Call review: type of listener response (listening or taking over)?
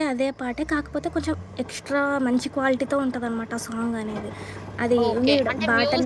taking over